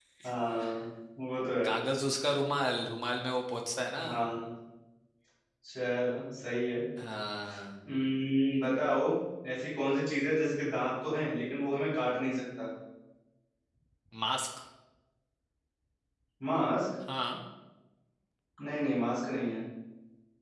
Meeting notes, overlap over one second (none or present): none